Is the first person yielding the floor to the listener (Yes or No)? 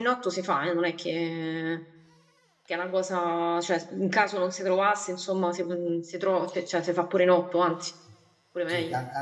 Yes